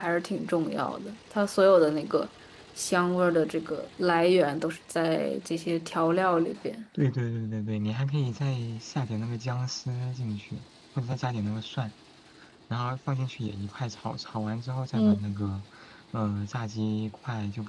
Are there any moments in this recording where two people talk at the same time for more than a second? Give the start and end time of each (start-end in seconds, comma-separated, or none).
none